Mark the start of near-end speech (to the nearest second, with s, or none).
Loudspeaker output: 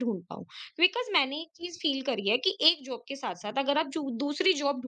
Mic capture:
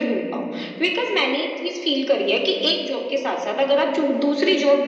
none